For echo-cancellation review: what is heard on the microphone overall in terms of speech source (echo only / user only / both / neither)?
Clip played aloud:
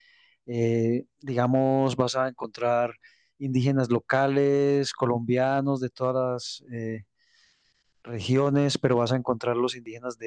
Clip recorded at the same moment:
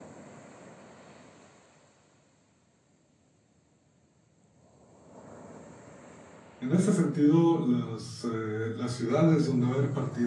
user only